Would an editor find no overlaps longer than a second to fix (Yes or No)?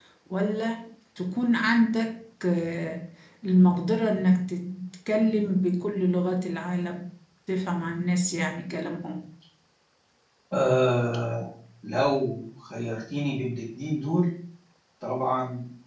Yes